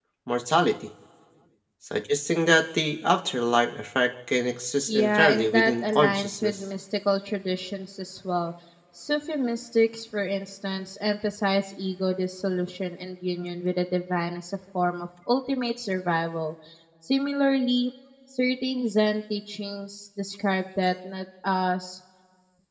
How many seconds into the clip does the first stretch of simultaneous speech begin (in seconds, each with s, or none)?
4.9 s